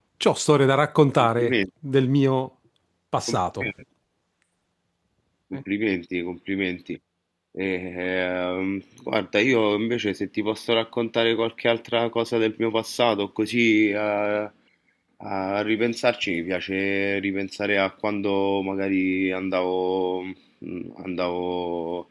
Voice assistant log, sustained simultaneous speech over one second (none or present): none